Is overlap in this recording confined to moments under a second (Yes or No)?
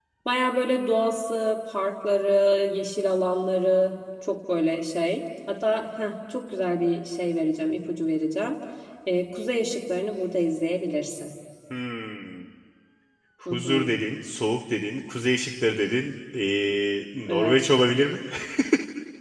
Yes